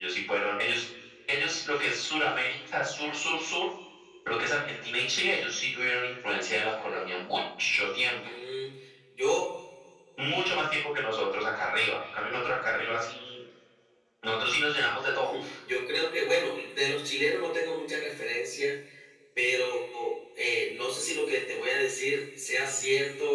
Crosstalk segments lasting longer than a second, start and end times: none

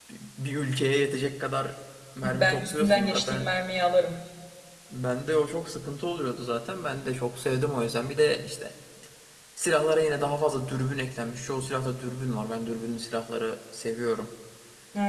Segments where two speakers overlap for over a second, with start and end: 2.2-3.5

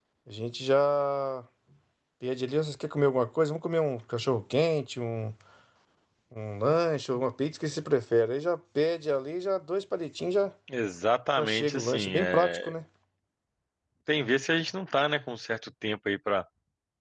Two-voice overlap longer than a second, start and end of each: 11.4-12.7

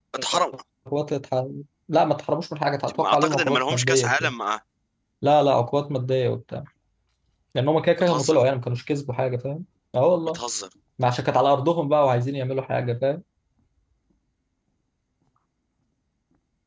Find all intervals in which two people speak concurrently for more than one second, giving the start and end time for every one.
2.9-4.3

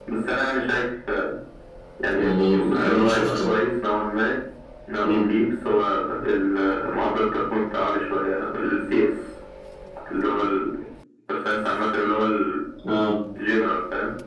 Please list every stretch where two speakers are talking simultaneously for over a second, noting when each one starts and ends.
2.2-3.6

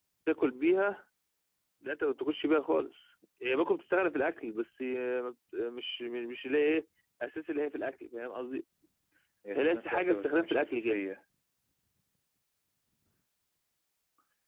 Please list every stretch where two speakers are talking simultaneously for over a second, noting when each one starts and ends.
9.5-11.0

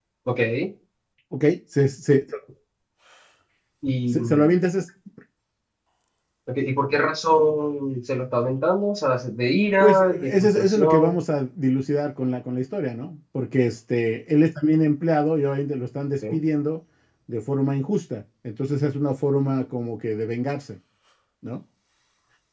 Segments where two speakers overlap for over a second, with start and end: 9.8-11.2

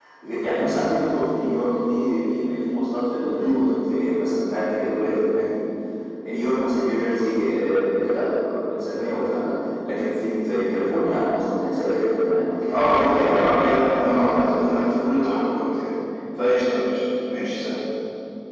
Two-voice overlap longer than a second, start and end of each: 12.7-14.9

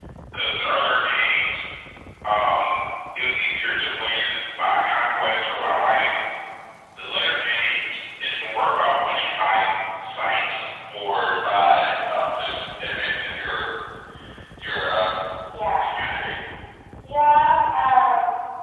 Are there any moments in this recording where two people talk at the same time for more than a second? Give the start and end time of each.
none

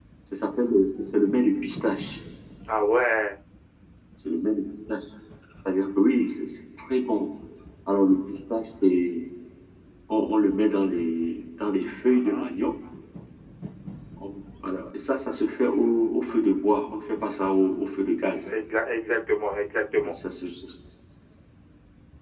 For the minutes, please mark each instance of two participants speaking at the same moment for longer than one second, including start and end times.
none

